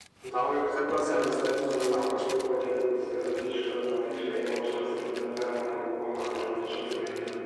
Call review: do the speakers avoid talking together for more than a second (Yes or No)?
No